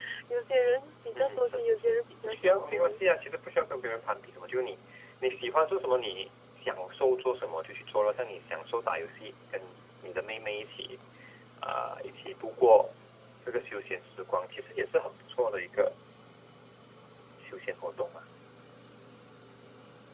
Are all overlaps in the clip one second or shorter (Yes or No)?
No